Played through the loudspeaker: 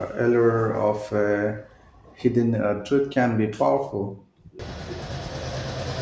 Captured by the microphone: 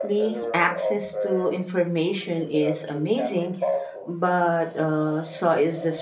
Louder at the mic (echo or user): user